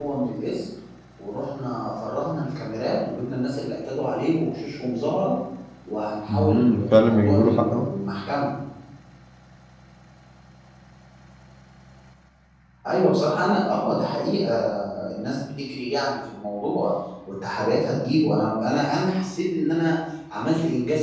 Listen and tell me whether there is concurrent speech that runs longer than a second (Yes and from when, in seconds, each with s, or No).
Yes, from 6.3 s